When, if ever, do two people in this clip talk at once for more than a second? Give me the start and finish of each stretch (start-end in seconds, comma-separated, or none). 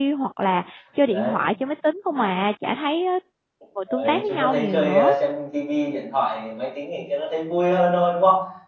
3.9-5.1